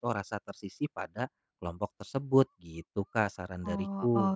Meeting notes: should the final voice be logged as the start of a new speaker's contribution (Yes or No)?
Yes